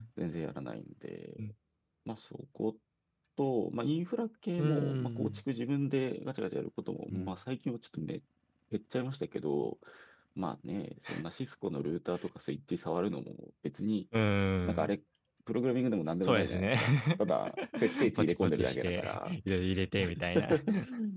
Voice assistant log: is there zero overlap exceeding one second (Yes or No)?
No